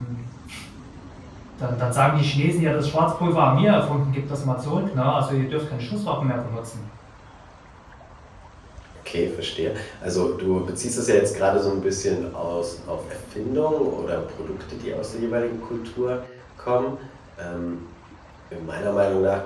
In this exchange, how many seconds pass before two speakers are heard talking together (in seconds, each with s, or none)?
none